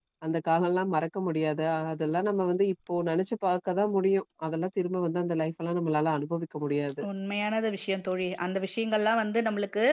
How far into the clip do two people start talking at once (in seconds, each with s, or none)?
none